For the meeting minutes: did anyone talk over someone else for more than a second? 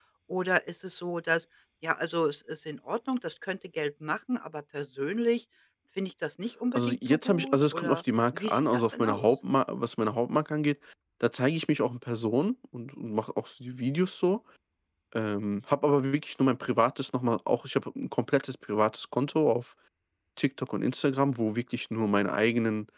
Yes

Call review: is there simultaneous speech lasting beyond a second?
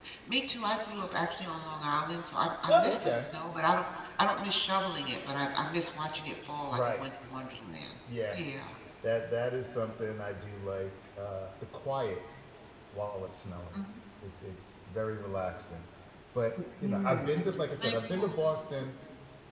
Yes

